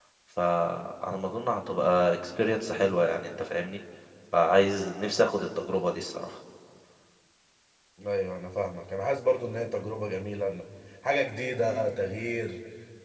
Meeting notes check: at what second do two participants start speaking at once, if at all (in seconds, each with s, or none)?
none